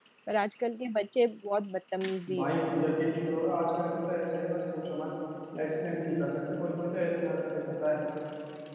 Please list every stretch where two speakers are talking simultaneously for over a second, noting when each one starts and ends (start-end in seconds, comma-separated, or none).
none